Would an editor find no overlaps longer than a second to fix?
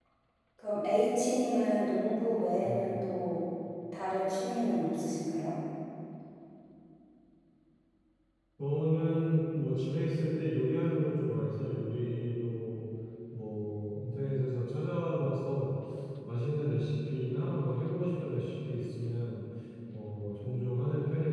Yes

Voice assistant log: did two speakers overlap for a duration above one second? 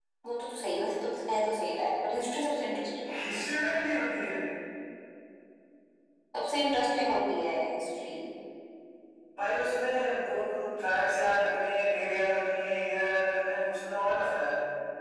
No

